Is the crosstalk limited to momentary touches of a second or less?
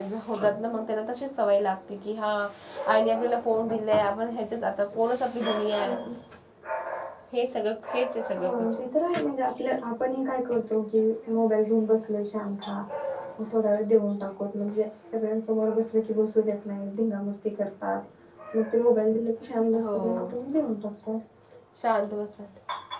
Yes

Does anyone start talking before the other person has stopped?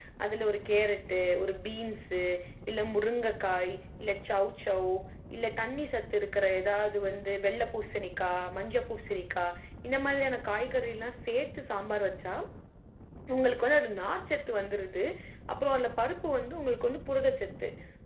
No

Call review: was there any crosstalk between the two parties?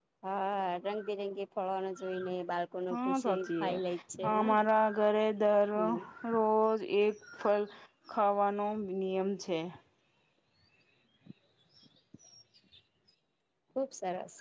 Yes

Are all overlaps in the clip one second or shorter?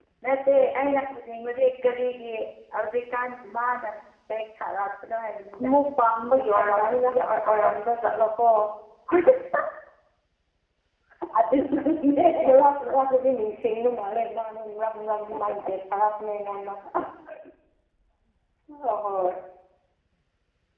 No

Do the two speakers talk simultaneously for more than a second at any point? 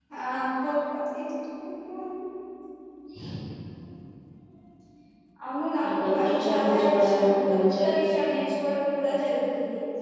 Yes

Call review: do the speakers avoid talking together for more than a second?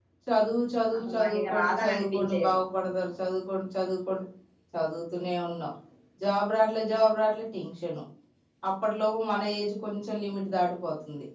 No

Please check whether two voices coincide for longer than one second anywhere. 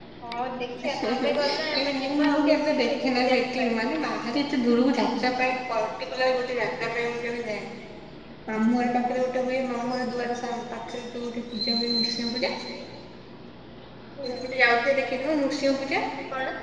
Yes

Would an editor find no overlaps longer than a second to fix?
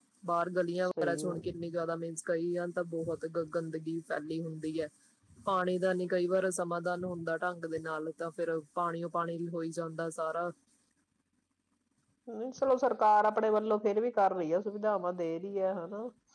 Yes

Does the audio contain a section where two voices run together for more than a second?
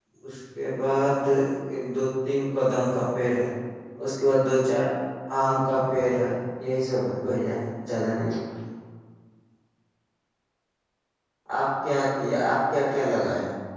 No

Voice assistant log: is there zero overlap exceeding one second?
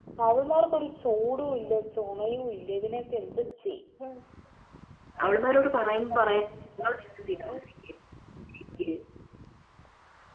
No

